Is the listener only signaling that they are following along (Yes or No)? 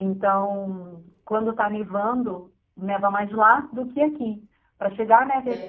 Yes